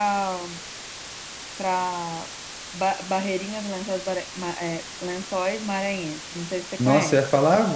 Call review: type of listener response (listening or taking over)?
taking over